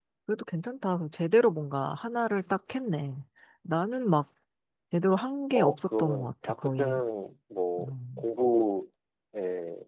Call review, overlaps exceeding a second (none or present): present